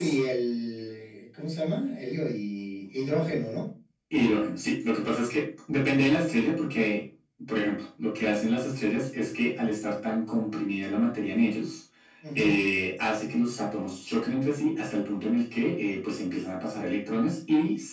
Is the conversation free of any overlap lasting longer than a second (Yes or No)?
Yes